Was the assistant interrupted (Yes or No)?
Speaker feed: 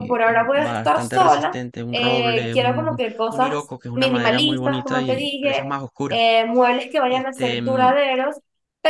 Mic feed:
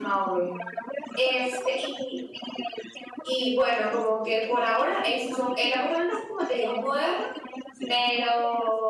Yes